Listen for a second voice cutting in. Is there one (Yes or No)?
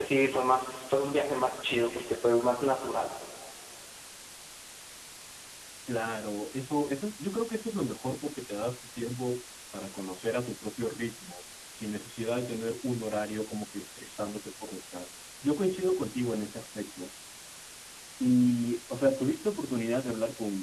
No